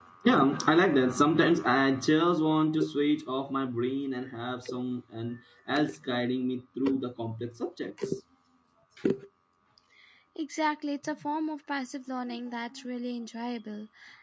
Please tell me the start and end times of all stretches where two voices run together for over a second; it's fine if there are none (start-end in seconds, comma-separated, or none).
none